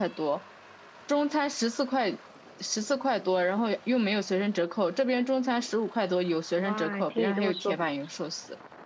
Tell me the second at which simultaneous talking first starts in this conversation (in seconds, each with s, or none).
6.6 s